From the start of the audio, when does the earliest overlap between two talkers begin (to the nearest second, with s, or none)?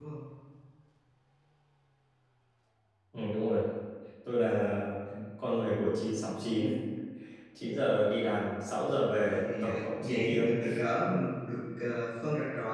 9 s